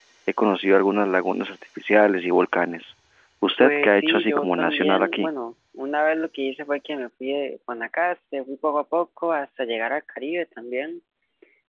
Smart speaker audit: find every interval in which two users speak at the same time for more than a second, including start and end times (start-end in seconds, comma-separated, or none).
3.6-5.3